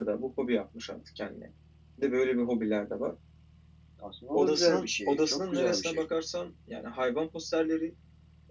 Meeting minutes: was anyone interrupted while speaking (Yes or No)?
Yes